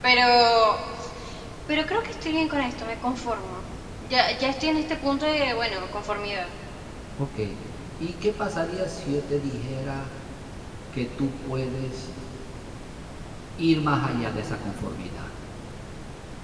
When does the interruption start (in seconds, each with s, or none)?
none